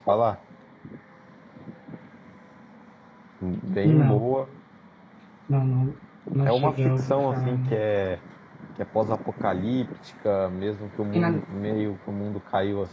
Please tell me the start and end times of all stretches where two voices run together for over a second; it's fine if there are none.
6.4-7.8

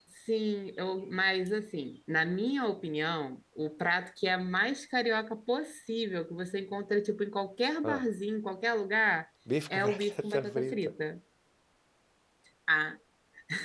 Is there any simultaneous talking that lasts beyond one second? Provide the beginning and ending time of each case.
9.7-10.9

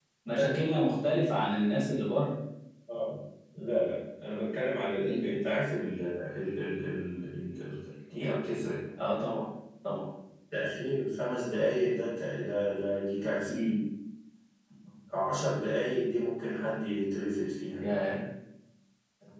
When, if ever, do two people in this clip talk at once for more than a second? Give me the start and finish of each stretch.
none

